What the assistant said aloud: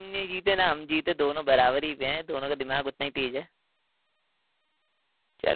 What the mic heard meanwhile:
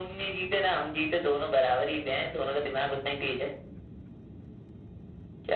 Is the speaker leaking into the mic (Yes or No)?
Yes